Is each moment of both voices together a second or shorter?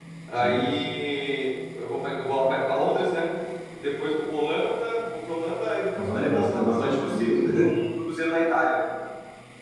No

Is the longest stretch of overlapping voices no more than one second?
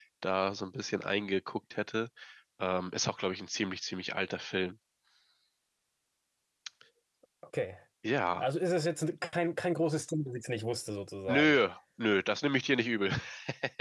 Yes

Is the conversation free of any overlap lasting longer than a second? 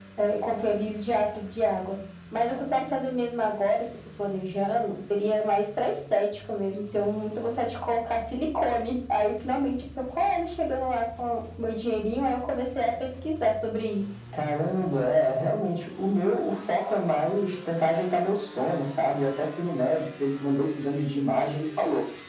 Yes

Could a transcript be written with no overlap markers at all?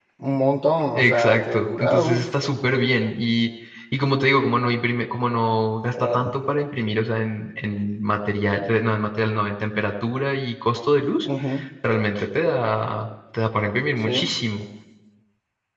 No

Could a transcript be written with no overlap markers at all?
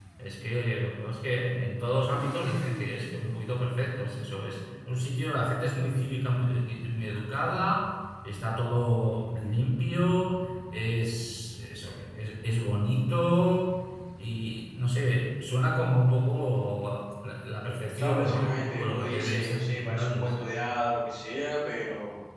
No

